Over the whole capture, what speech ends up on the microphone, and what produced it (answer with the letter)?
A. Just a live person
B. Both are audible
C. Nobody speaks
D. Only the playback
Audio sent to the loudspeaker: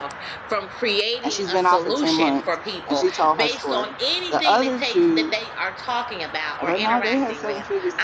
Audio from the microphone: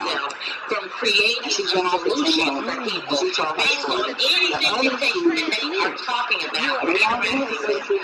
B